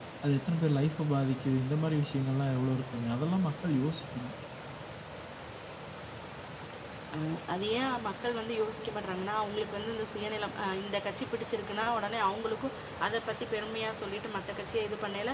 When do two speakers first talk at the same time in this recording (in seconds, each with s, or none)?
none